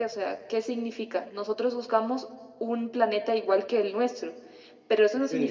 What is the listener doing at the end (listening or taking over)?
listening